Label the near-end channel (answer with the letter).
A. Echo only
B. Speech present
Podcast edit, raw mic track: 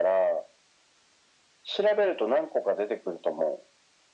A